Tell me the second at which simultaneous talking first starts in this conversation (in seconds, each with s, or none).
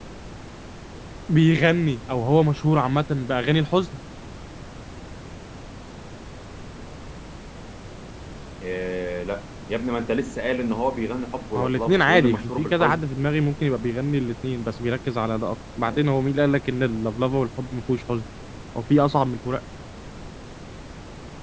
11.5 s